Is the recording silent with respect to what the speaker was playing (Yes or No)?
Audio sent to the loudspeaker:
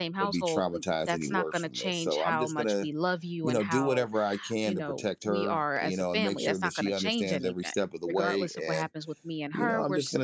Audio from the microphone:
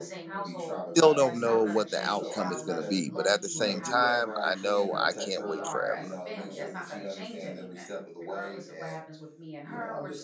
No